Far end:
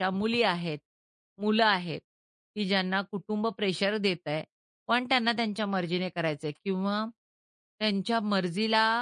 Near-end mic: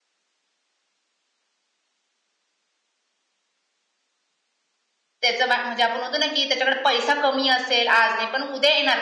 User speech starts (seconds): 5.2 s

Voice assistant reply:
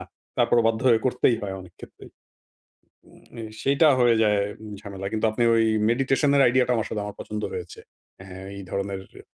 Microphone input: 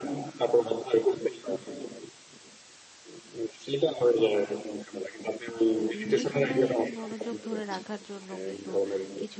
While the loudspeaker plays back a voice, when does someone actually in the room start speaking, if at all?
5.8 s

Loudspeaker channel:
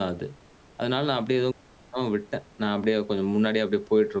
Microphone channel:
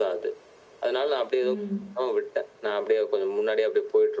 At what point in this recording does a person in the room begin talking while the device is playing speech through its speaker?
1.4 s

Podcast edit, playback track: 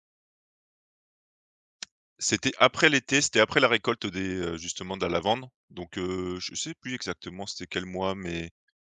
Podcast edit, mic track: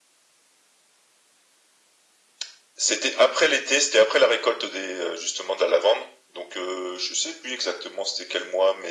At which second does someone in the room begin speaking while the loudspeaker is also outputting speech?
none

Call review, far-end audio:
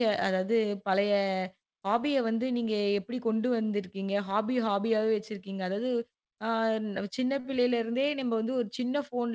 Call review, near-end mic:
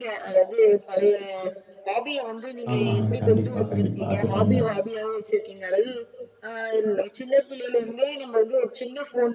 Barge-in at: 2.7 s

